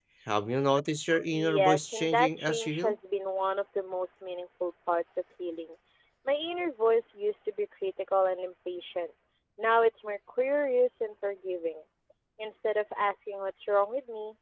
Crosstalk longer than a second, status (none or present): present